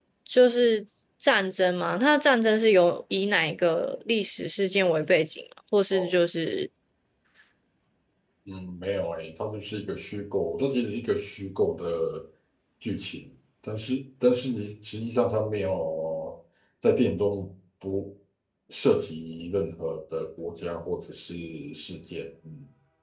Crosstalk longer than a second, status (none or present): none